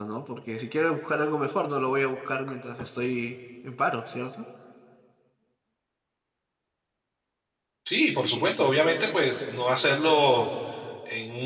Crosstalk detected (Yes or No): No